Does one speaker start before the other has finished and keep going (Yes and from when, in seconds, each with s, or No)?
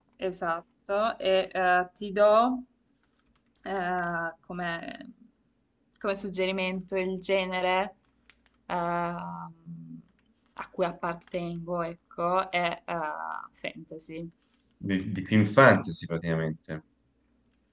No